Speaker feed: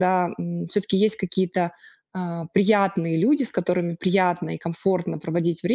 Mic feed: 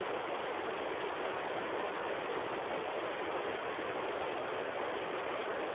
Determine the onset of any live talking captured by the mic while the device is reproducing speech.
none

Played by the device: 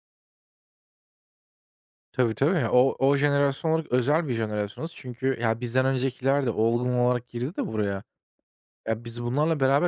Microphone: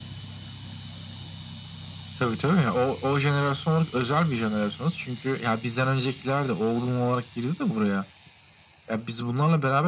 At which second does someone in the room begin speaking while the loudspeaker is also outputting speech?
none

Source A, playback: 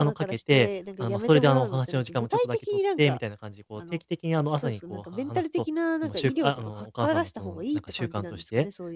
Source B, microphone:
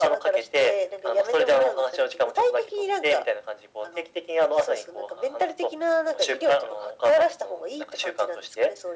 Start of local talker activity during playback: none

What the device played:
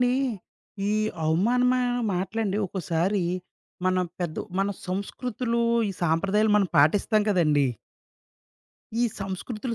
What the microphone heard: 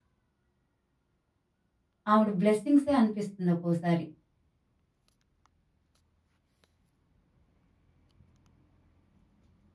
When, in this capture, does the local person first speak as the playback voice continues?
2.1 s

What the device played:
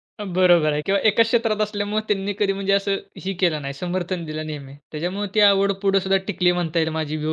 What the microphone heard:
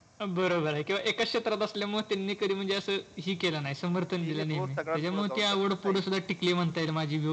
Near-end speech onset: 3.9 s

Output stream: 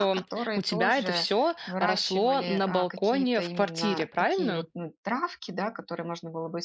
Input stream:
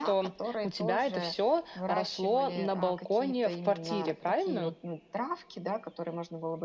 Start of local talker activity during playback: none

